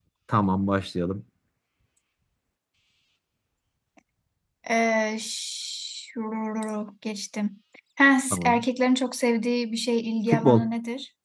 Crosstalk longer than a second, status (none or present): none